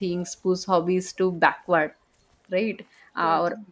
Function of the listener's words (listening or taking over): listening